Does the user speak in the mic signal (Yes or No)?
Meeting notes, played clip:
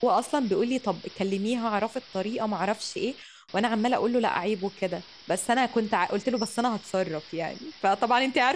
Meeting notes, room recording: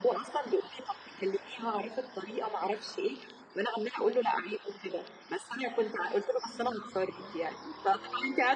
No